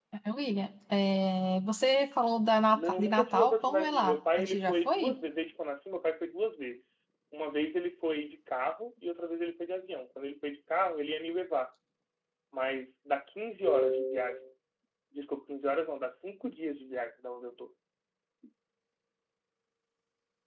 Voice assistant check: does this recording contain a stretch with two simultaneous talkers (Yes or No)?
Yes